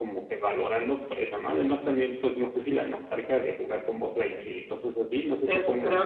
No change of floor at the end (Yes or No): No